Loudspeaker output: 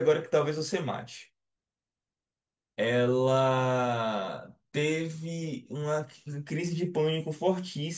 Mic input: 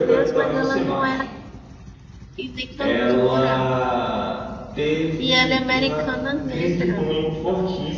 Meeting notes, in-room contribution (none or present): present